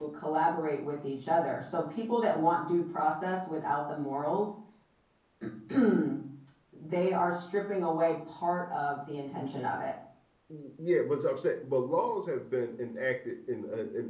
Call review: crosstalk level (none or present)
none